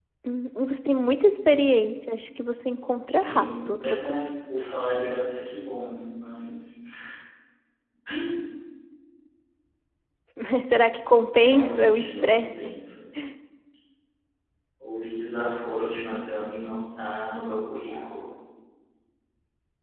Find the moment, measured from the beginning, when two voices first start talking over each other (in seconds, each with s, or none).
3.1 s